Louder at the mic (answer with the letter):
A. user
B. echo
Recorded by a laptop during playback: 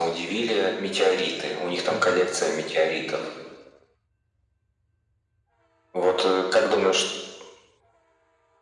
B